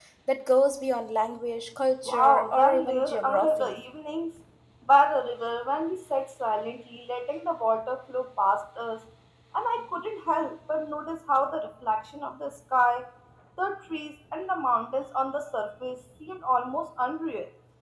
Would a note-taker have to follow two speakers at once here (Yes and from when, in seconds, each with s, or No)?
Yes, from 2.1 s